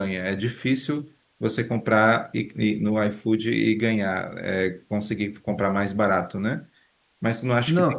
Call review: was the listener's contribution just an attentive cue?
Yes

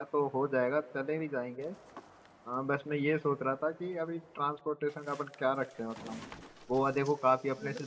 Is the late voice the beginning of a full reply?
No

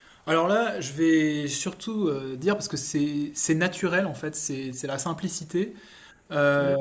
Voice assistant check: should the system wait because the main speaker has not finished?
Yes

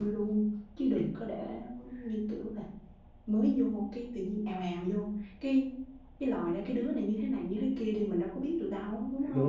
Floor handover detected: Yes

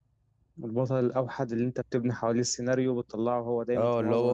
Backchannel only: No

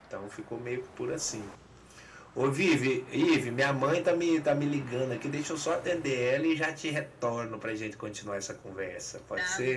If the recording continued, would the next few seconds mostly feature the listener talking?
Yes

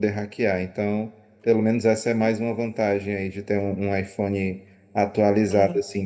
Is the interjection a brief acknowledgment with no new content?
Yes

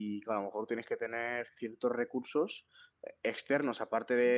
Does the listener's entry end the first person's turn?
No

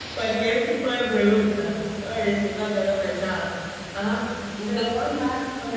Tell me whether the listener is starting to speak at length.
Yes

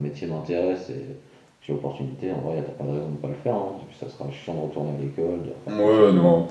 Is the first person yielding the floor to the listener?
Yes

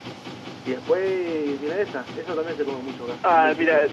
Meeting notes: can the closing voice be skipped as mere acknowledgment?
No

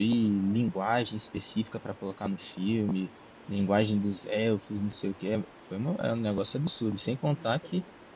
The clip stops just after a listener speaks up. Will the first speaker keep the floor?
Yes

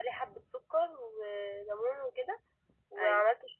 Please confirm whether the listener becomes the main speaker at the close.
No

